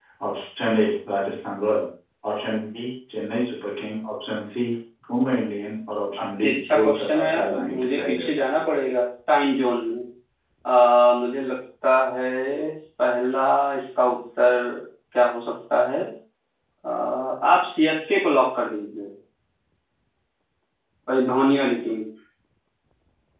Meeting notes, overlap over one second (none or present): present